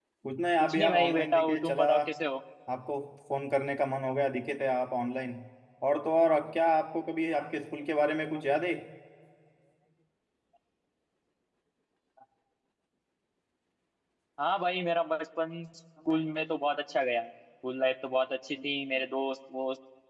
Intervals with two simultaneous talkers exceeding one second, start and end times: 0.6-1.8

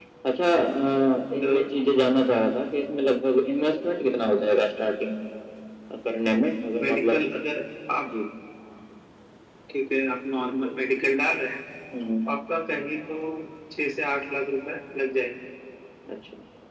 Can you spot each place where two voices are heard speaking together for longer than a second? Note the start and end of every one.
none

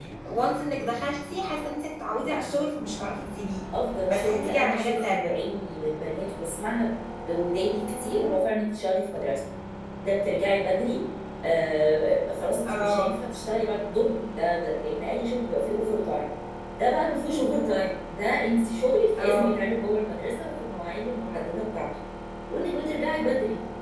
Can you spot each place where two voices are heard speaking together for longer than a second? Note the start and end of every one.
4.1-5.3

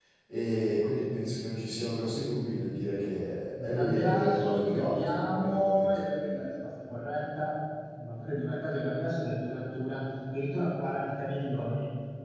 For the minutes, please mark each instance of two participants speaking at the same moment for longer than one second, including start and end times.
3.6-5.9

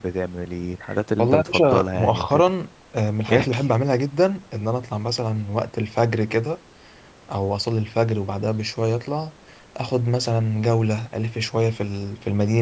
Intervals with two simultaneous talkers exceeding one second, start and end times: 1.2-2.5

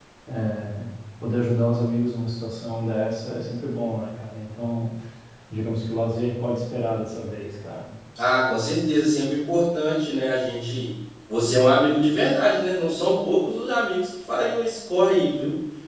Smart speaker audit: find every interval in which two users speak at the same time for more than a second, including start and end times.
none

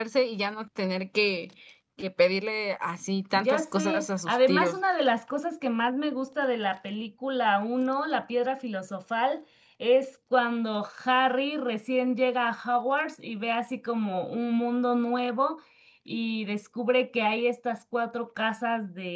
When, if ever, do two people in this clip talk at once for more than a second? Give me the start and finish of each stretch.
3.4-4.8

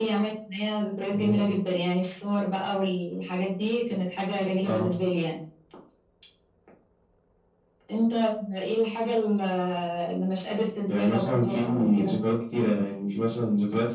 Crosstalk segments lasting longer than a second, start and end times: 10.9-12.2

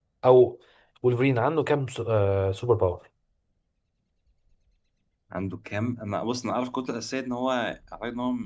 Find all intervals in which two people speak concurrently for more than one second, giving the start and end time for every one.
none

